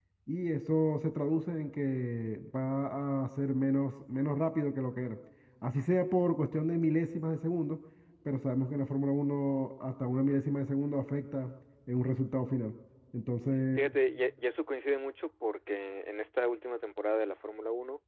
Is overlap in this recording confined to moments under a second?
Yes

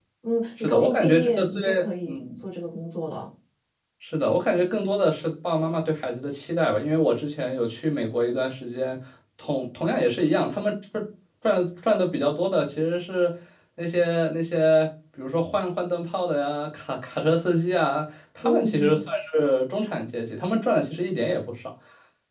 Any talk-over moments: Yes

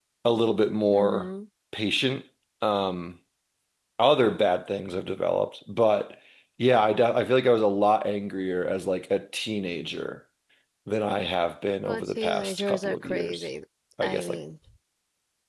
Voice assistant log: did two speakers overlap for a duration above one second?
Yes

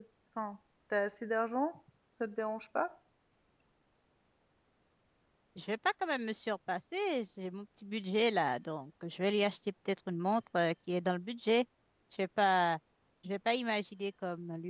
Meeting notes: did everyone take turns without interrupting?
Yes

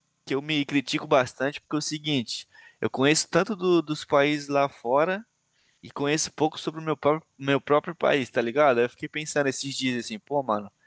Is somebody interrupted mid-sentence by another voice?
No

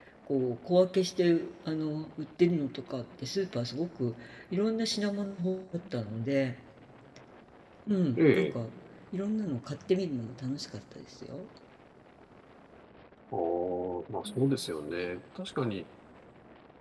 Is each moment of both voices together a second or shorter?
Yes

